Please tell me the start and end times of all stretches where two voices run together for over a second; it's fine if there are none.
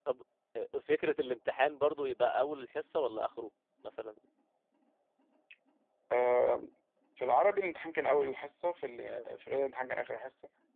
none

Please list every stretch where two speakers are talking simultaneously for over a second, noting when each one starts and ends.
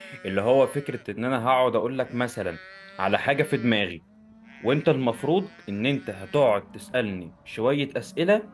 none

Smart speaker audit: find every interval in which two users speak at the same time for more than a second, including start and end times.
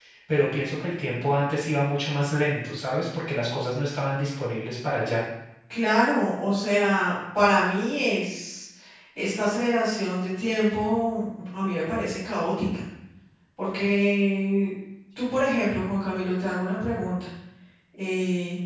none

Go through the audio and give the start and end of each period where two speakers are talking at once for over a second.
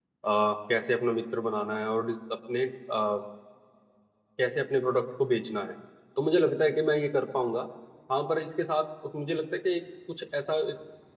none

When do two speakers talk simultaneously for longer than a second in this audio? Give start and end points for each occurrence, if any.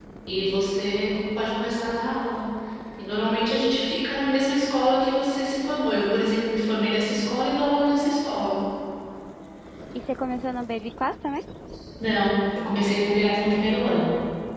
none

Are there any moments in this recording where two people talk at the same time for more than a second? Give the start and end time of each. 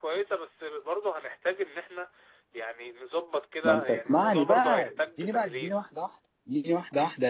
3.6-5.7

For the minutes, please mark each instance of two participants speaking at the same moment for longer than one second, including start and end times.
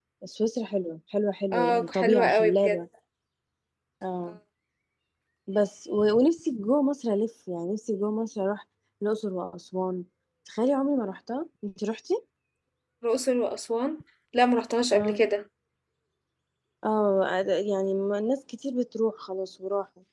1.5-2.8

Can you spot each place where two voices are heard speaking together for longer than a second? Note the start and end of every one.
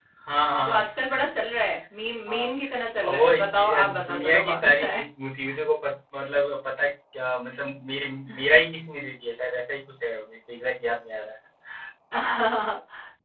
3.0-4.8

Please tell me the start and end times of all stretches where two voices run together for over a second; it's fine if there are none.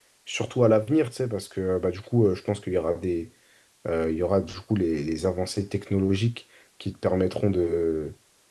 none

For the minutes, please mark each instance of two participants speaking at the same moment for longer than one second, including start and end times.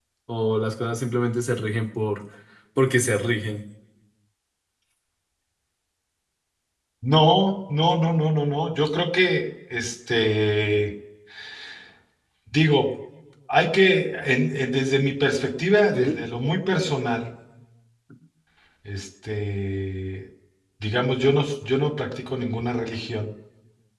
none

